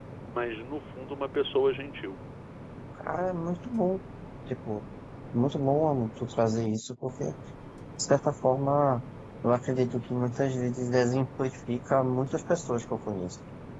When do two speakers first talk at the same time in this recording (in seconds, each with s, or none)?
none